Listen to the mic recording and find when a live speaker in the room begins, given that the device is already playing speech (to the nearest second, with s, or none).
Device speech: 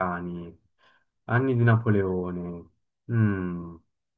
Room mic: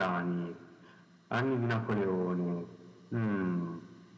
none